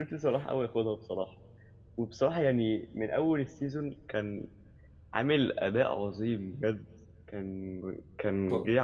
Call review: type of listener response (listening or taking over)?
listening